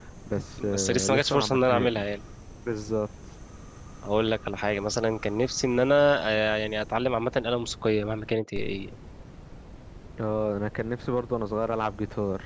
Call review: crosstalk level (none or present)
present